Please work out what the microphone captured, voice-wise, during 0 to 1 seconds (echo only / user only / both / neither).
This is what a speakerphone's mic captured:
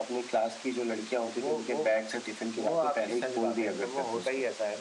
echo only